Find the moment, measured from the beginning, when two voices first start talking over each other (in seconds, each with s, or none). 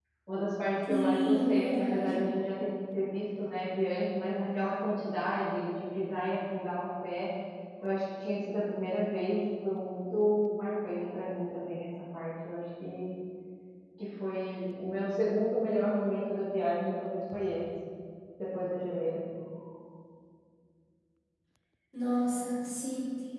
0.8 s